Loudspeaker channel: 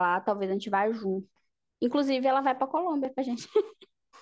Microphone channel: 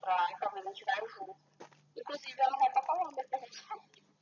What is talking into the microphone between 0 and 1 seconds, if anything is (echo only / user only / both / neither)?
echo only